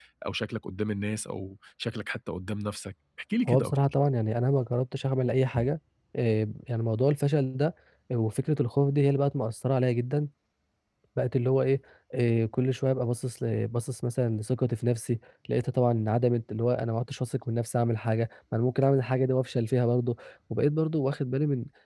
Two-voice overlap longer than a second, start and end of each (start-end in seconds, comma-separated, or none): none